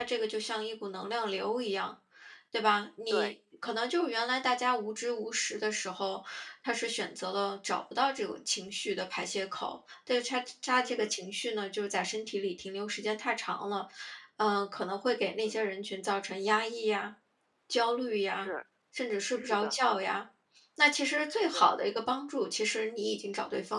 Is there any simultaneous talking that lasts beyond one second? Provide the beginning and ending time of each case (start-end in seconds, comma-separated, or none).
none